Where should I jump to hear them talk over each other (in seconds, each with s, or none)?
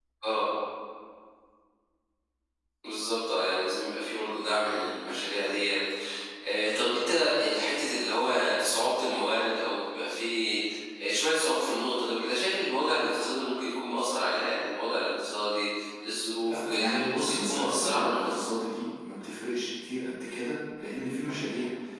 16.5 s